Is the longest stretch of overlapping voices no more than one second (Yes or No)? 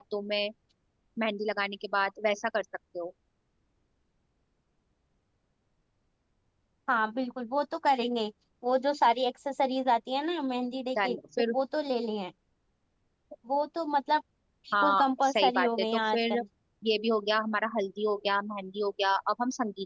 No